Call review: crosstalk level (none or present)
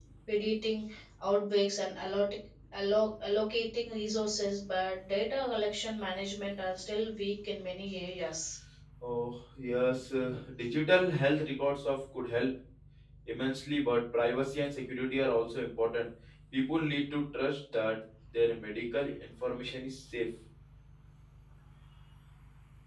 none